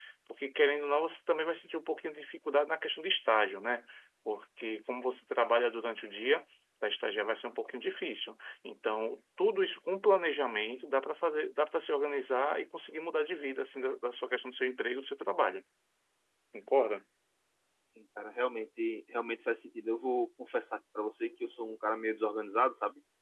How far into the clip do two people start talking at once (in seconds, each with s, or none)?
none